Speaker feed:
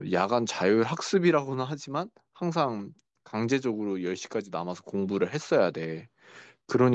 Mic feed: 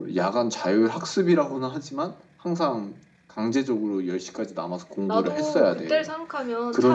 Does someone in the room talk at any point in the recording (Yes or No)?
Yes